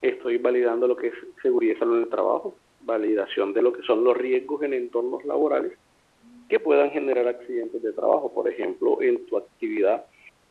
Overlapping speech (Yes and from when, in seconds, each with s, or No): No